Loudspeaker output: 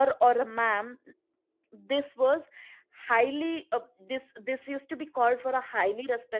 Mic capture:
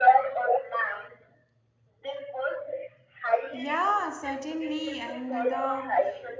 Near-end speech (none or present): present